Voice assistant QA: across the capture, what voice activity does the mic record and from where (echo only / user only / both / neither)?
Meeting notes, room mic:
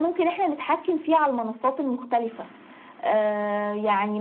echo only